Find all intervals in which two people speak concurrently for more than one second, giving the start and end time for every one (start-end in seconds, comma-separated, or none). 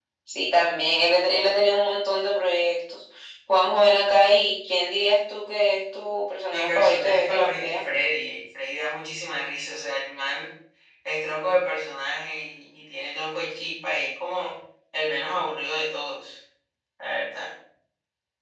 6.5-7.8